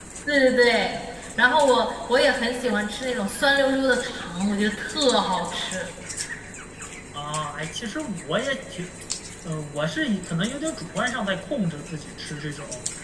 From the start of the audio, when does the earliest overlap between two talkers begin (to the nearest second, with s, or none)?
none